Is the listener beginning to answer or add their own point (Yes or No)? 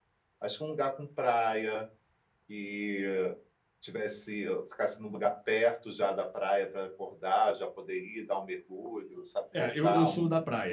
Yes